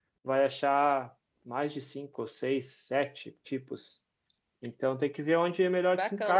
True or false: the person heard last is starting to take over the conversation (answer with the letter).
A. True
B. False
A